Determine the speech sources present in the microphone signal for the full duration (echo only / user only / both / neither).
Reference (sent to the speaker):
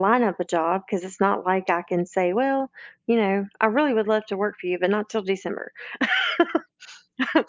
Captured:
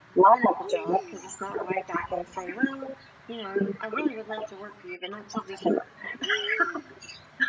echo only